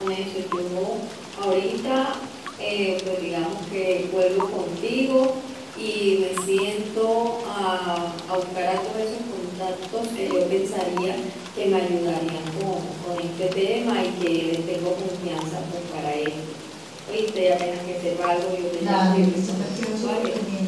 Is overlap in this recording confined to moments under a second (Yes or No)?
No